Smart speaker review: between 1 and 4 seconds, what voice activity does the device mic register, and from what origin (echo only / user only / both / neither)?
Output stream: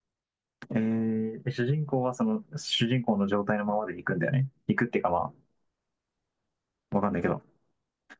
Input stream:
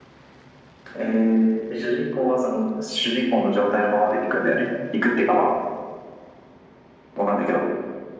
echo only